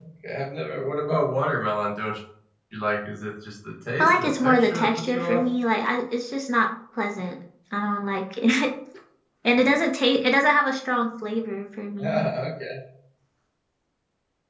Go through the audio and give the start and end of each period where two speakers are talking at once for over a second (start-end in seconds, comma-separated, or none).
4.0-5.4